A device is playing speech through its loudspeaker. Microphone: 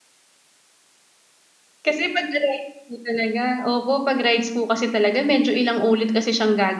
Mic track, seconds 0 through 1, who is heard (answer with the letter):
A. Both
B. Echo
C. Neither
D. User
C